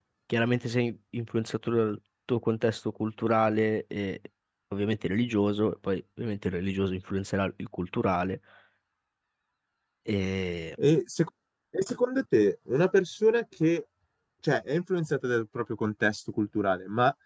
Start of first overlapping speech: none

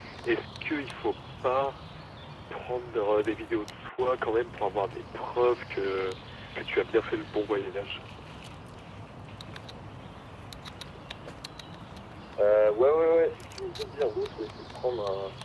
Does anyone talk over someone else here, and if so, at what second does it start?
none

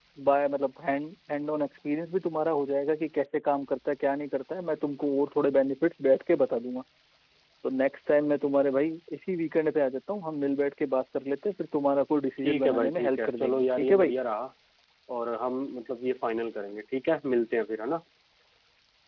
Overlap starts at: 12.4 s

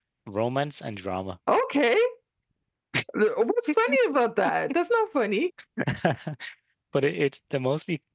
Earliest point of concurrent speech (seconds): none

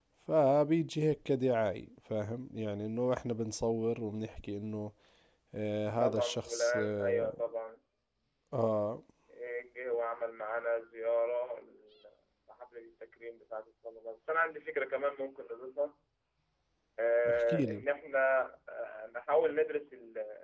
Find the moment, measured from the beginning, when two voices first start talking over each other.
6.0 s

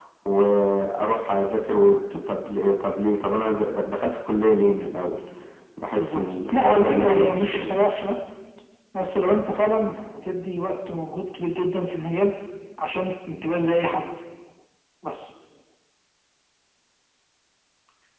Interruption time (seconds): 6.0 s

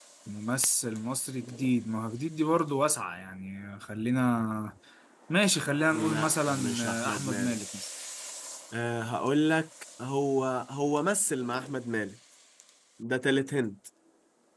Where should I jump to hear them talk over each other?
5.9 s

